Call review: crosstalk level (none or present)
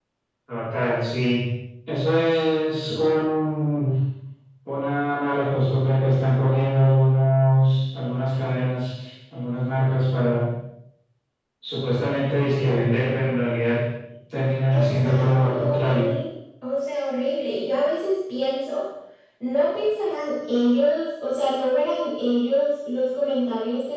present